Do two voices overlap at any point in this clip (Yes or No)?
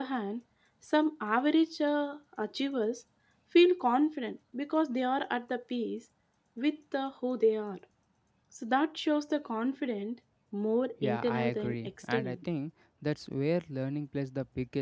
Yes